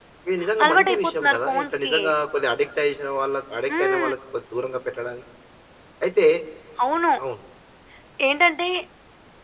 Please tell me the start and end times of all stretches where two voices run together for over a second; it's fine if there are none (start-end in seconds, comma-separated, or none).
0.6-1.9